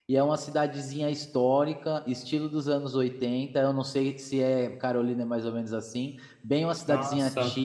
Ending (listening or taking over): listening